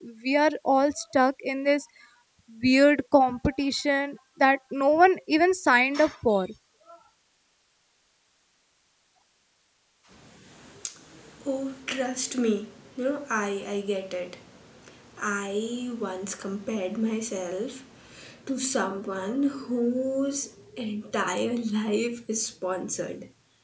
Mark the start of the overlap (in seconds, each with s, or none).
none